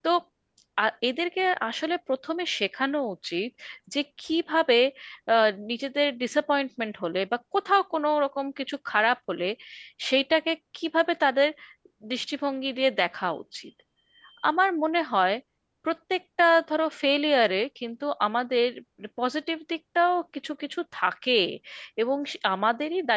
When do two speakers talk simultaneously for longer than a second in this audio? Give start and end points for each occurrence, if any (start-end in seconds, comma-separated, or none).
none